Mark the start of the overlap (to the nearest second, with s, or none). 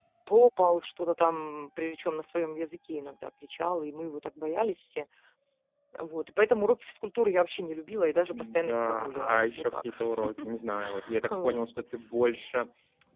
8 s